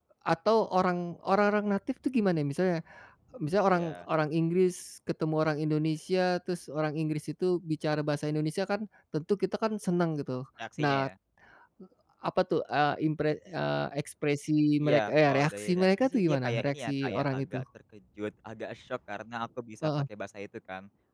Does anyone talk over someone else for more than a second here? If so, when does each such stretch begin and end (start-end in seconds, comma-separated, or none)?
14.8-17.6